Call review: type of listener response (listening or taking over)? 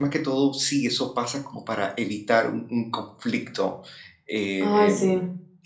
listening